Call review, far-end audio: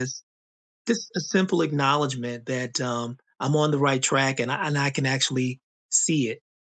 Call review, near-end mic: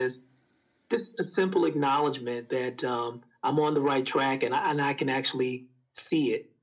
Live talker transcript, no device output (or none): none